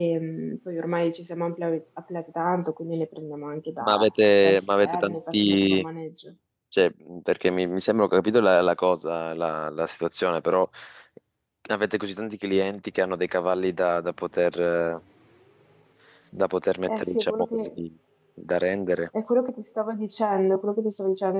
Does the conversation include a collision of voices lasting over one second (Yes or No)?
Yes